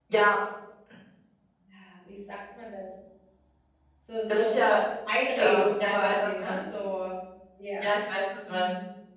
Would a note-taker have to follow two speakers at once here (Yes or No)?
Yes